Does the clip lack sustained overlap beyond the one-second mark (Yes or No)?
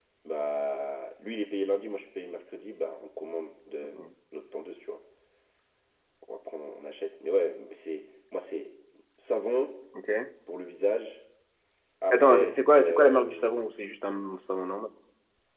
No